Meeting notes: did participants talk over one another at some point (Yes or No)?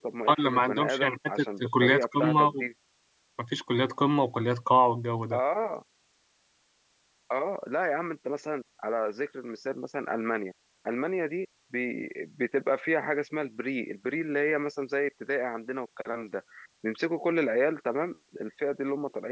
Yes